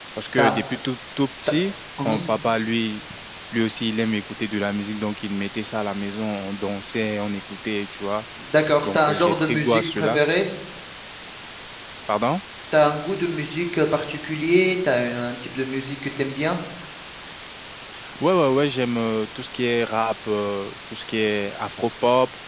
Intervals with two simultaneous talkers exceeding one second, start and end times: 8.8-10.2

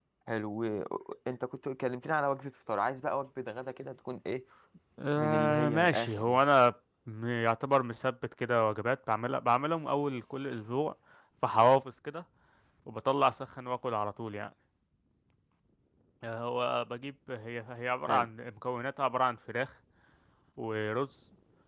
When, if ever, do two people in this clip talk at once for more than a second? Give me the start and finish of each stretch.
5.2-6.4

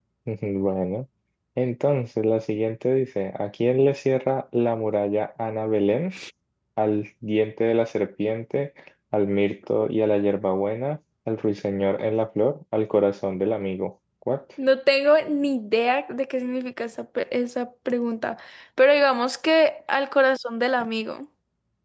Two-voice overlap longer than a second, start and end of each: none

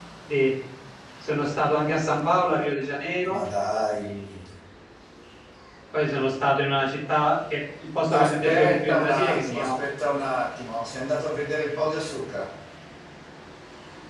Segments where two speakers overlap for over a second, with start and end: 8.1-9.7

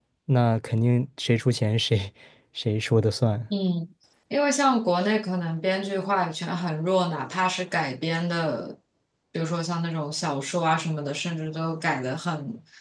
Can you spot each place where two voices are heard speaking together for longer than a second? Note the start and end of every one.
none

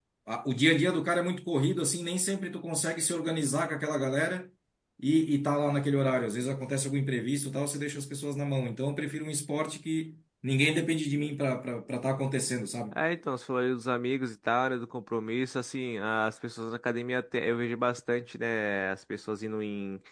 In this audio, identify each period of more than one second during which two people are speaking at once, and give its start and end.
none

